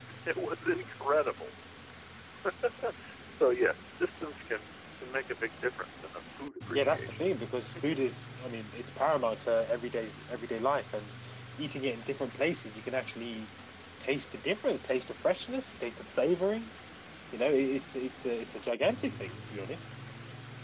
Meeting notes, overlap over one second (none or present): none